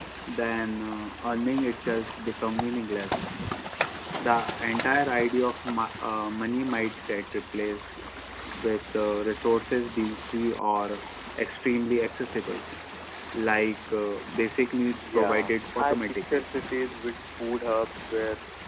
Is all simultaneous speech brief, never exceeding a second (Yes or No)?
No